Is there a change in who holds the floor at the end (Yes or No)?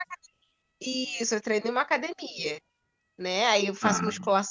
No